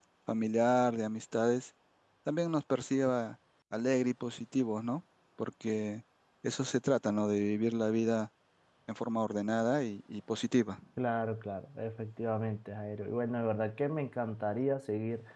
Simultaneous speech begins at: none

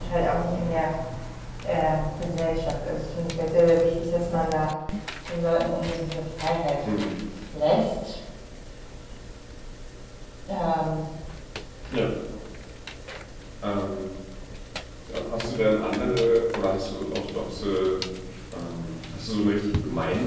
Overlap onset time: none

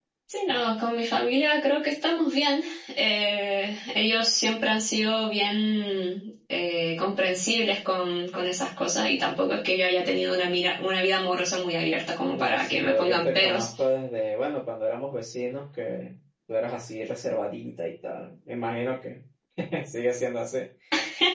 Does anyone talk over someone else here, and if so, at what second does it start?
12 s

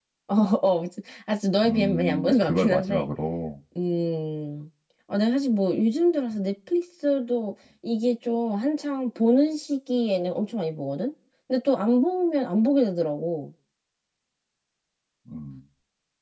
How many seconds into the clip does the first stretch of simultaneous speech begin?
2 s

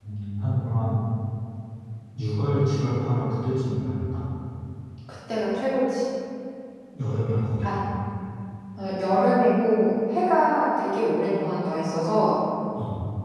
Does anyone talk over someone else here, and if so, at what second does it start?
none

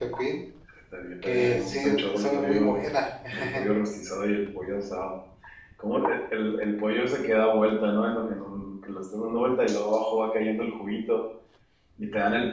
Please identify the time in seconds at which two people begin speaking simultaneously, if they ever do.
1 s

